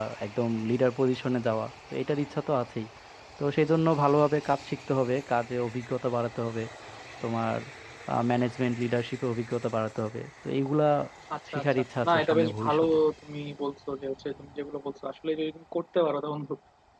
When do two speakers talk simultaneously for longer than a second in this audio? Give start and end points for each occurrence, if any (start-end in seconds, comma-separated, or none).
11.5-12.8